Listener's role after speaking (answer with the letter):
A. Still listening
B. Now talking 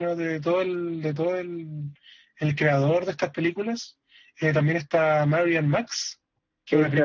B